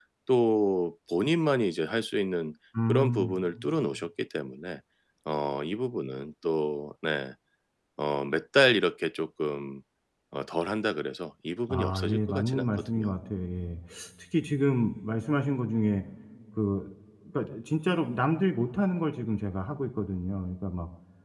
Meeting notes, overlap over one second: present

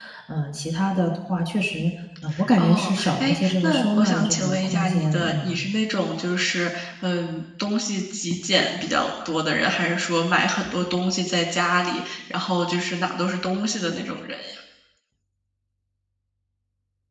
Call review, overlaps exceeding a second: present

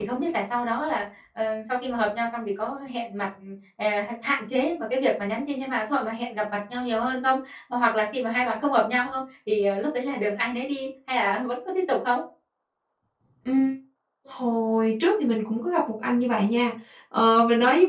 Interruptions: none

